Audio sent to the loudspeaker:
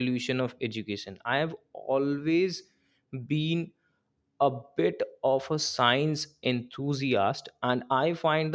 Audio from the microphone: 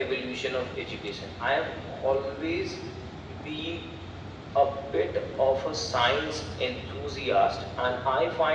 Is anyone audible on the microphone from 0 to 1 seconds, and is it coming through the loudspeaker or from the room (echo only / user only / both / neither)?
echo only